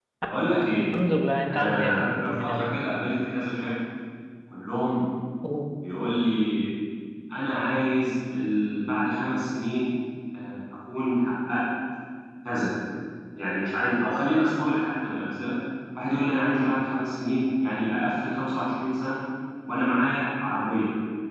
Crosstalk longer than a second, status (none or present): present